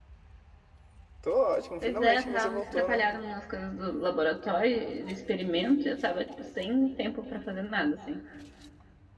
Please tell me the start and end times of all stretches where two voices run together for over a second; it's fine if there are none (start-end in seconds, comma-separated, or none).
1.8-3.1